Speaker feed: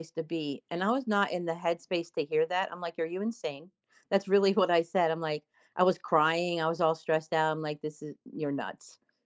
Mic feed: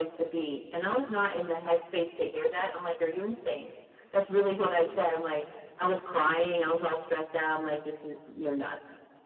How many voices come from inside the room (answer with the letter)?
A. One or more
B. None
B